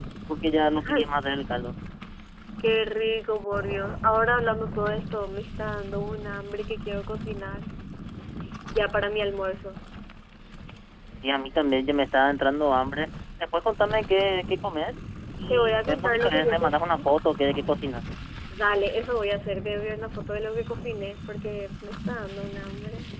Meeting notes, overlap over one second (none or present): present